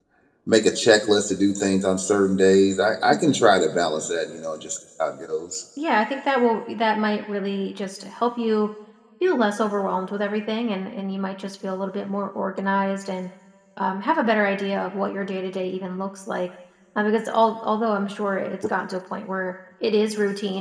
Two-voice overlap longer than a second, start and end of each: none

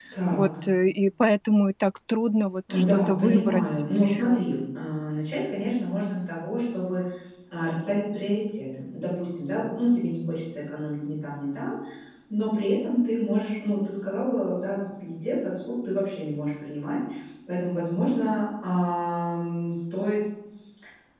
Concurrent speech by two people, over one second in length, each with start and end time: 2.7-4.4

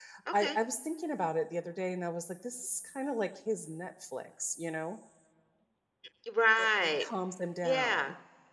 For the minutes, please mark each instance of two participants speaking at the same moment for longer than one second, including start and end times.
none

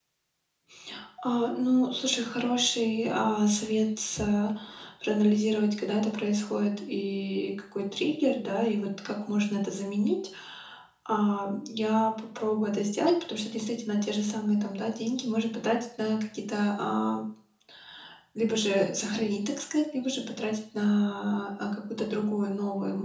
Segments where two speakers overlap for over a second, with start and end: none

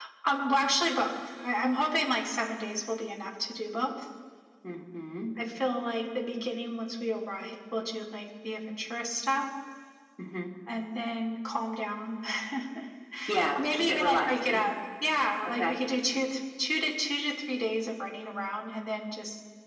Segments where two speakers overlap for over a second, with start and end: 13.4-14.7

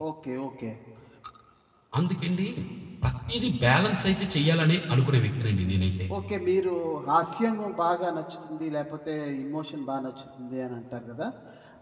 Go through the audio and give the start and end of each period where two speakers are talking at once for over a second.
none

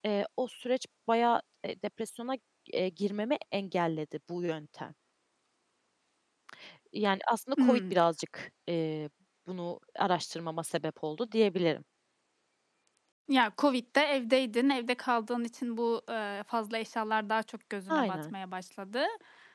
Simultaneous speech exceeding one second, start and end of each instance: none

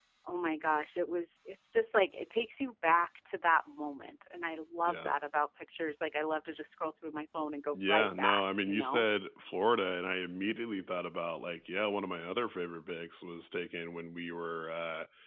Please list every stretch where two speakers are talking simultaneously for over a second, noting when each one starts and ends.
7.7-9.1

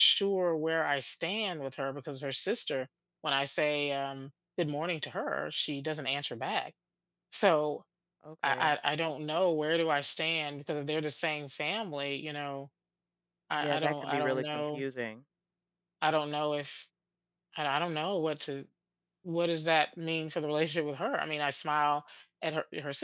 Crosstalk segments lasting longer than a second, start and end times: 13.6-14.8

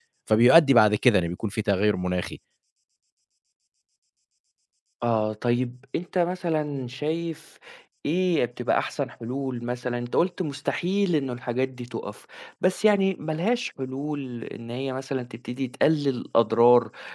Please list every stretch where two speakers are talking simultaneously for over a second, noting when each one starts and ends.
none

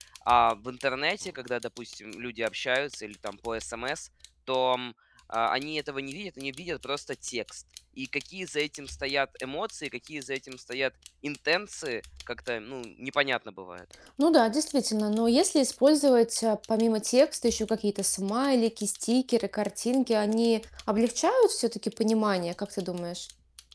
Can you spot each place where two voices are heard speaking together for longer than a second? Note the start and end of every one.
none

